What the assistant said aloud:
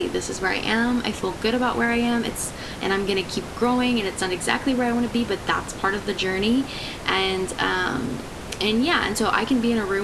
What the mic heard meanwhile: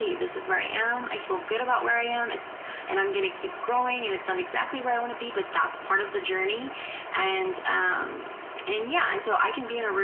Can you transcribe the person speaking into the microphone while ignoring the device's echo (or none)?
none